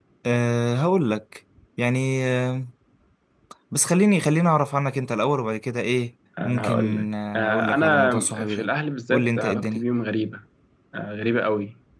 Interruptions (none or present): present